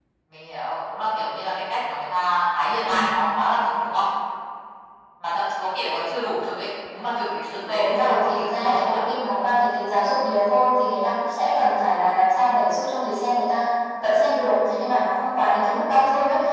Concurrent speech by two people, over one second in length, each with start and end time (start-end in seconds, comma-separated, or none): 7.7-9.0